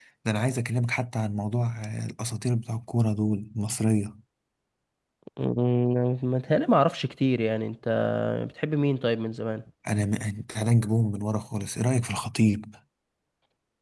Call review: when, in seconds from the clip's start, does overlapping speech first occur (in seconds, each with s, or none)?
none